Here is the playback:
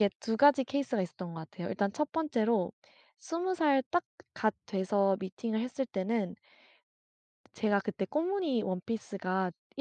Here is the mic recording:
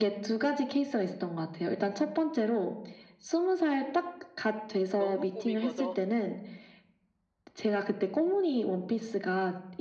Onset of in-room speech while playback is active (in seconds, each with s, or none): 5.0 s